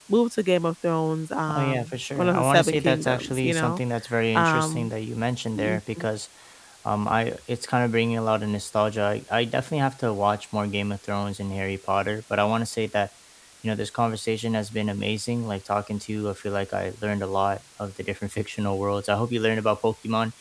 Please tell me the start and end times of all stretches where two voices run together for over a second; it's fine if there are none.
1.5-3.8

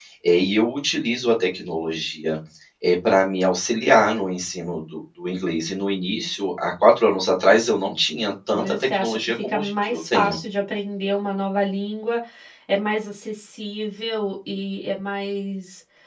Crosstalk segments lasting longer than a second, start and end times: 8.5-10.4

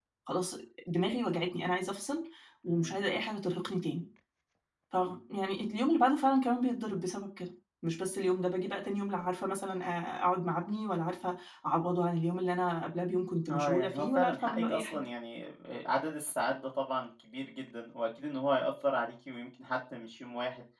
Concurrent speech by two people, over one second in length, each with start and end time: 13.5-15.0

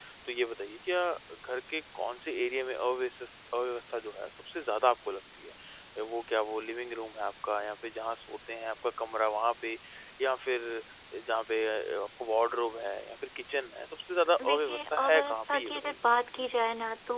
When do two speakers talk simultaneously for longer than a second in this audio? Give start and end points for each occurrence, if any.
14.4-15.9

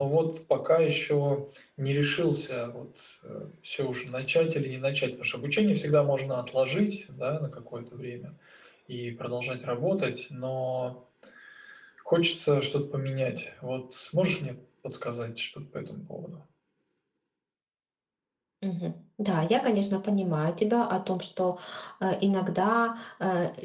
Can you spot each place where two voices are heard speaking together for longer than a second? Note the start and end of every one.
none

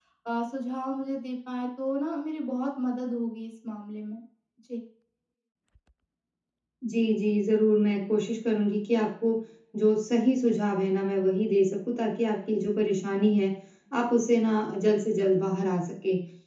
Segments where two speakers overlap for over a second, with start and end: none

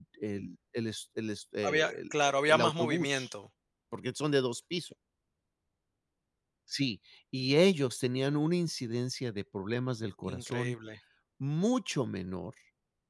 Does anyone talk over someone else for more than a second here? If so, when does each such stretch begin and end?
1.7-3.3

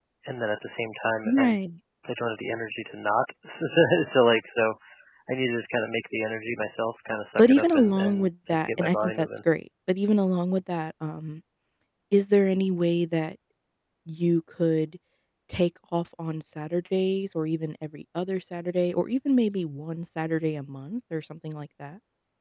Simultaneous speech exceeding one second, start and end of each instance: 7.4-9.3

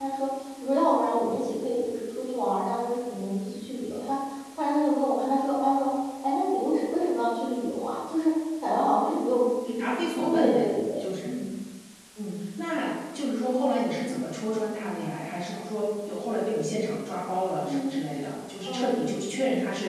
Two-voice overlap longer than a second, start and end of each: none

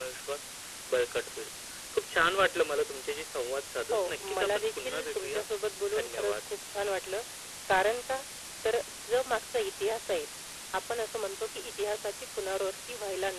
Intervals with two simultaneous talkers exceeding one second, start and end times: 3.9-5.4

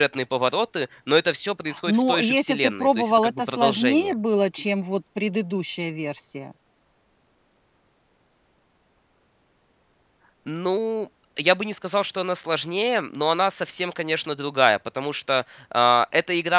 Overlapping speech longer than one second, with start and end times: 1.9-4.1

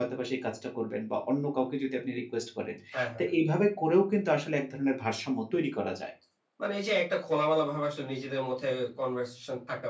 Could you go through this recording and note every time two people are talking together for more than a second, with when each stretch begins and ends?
none

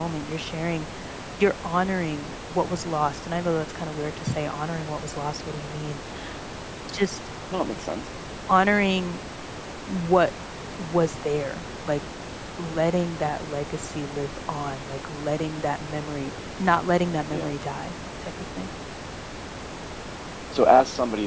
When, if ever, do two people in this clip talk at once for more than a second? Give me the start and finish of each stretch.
none

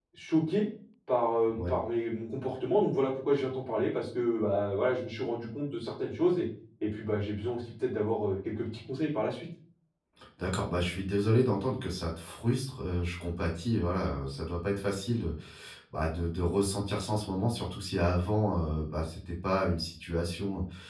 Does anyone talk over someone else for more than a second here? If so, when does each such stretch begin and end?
none

